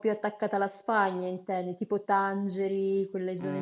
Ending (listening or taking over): taking over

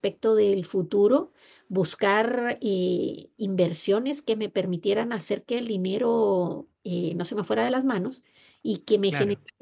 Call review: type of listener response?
listening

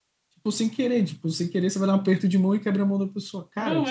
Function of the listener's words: listening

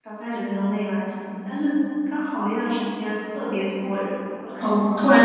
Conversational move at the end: taking over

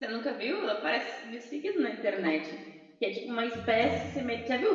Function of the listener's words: listening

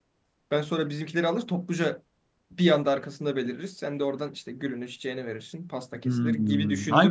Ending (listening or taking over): taking over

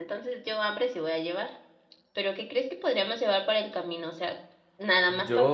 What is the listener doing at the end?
taking over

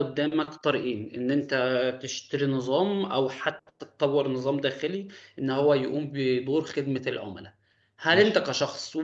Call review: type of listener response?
listening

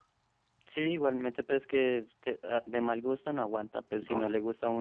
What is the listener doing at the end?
listening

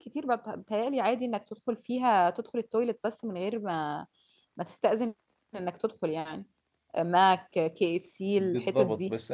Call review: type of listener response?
taking over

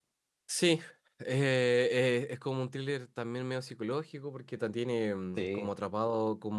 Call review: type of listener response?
listening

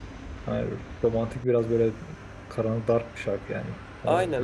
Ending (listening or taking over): taking over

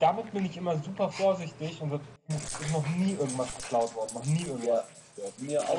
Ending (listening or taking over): taking over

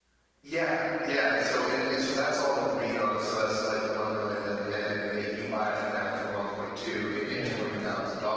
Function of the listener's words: listening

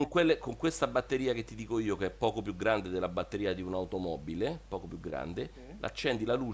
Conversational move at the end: listening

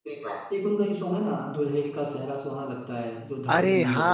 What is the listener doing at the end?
taking over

